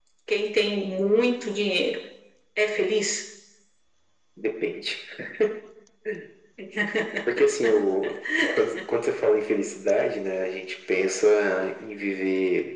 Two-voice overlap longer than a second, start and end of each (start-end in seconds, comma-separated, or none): none